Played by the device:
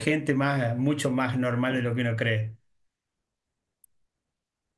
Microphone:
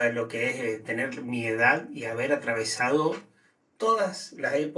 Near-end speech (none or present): present